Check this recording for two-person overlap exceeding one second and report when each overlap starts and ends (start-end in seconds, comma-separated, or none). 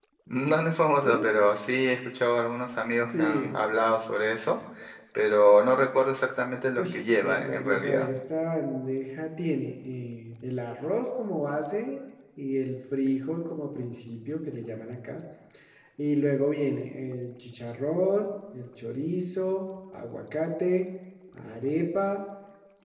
6.8-8.1